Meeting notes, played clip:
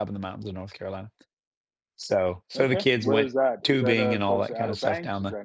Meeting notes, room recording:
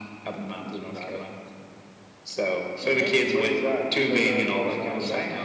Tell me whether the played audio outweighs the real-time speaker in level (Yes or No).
Yes